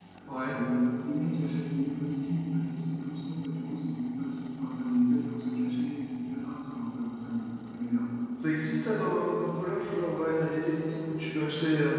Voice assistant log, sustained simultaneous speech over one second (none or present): none